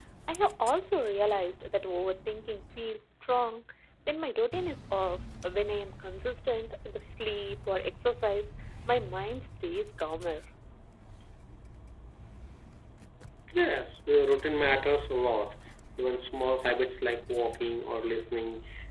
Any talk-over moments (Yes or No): No